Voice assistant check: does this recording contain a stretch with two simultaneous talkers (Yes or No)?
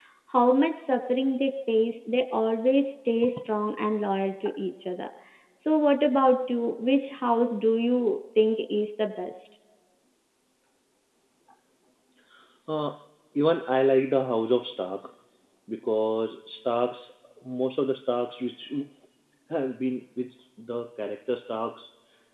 No